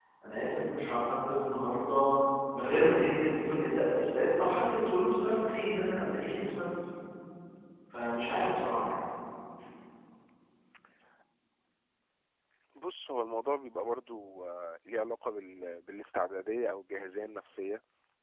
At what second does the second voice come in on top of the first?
none

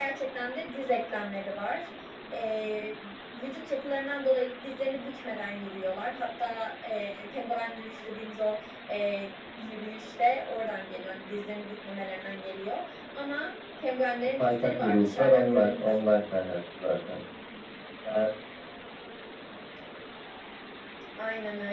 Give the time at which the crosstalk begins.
14.4 s

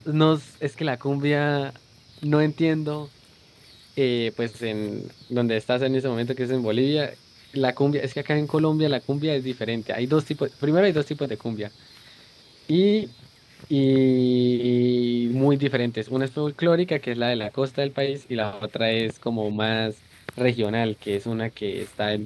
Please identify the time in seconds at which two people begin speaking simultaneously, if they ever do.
none

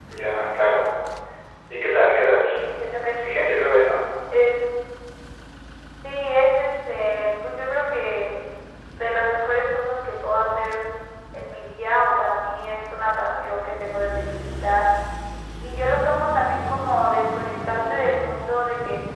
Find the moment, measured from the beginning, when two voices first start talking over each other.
none

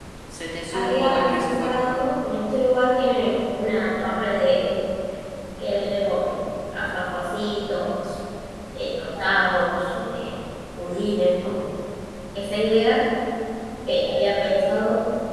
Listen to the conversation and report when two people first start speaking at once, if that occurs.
0.7 s

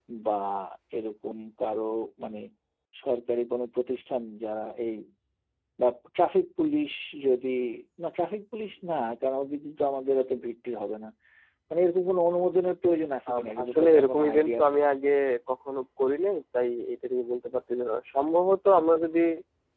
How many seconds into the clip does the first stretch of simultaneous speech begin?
13.3 s

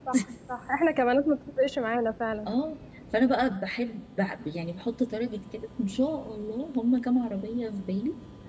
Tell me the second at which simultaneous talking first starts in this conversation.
none

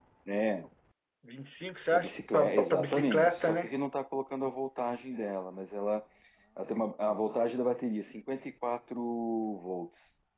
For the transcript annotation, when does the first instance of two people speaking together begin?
1.9 s

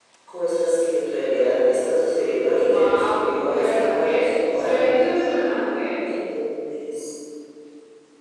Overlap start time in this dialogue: 2.6 s

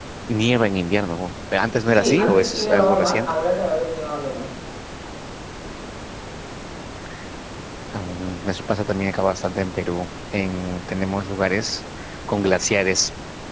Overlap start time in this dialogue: 1.9 s

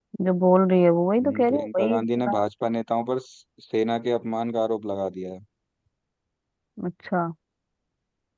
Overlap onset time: 1.2 s

